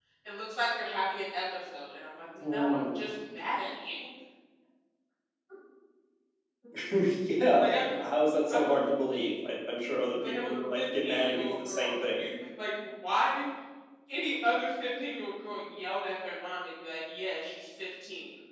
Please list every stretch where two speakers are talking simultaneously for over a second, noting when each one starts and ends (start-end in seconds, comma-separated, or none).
10.2-12.2